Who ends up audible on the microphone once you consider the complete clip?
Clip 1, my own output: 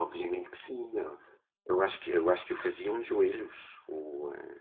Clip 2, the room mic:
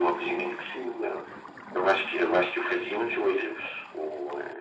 echo only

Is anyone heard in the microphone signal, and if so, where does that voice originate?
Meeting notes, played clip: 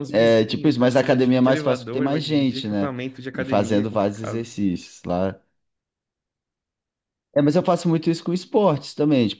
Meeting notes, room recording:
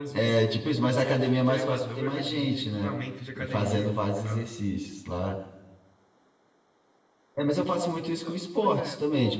both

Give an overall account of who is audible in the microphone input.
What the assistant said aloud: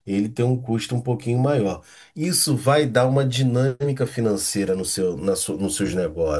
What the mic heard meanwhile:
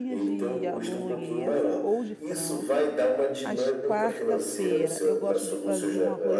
both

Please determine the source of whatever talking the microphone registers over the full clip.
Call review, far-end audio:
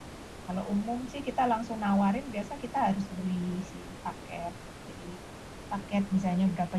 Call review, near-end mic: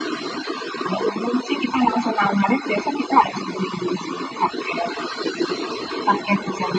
echo only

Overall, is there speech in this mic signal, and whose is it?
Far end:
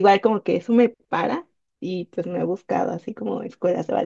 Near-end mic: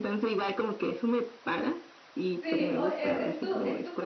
both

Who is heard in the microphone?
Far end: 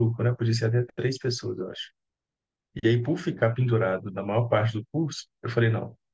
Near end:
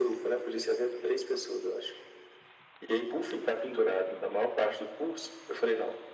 echo only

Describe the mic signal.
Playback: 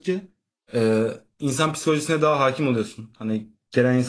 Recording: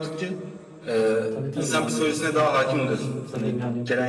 both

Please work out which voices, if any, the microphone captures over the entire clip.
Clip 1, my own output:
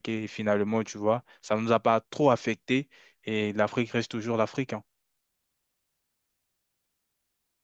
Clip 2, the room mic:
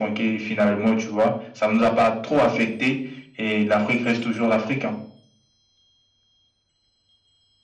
echo only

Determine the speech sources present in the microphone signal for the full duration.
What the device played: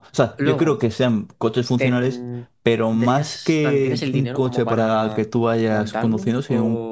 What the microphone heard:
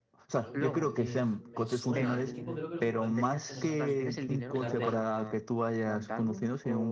both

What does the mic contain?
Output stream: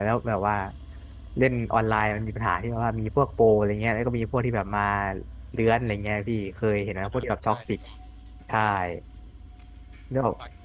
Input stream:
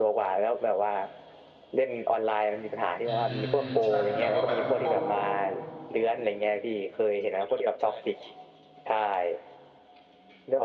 both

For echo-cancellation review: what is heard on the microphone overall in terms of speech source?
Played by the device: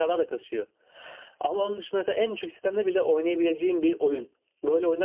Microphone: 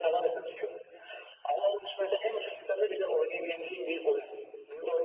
echo only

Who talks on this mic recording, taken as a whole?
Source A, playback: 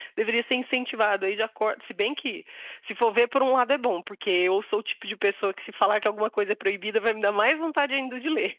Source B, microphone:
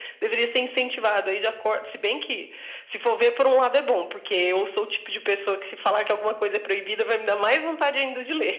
echo only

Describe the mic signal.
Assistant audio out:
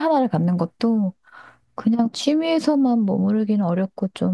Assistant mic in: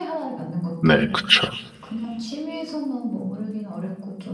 both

